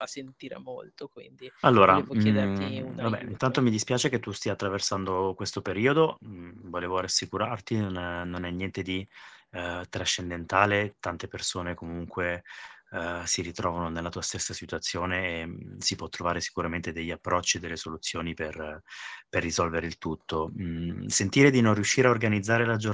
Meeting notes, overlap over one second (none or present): present